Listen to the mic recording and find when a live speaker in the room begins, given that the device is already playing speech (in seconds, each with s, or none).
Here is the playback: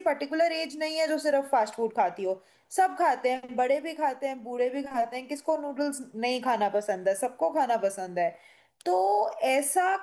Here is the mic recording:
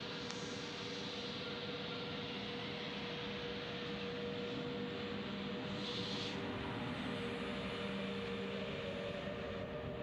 none